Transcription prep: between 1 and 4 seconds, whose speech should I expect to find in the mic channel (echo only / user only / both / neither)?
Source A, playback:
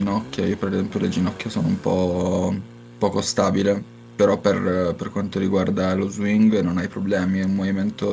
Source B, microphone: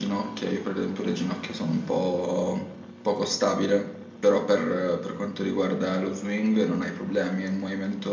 echo only